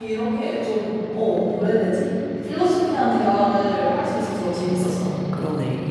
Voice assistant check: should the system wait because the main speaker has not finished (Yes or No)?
No